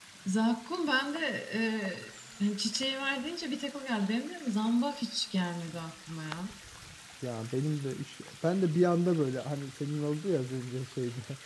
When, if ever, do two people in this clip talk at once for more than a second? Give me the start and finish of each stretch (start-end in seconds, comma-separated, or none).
none